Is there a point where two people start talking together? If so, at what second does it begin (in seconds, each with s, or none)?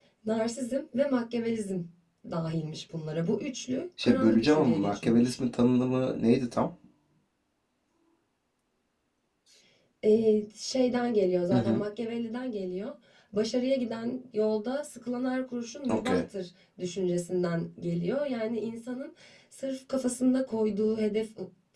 4.0 s